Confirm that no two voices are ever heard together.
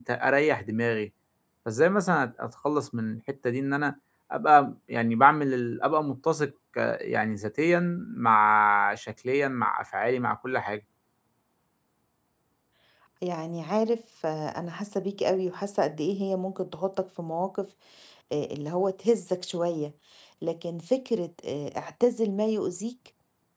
Yes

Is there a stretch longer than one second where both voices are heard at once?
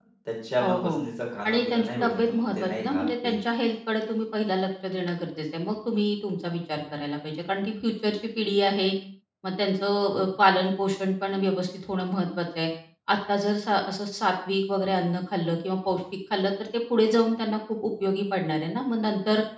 Yes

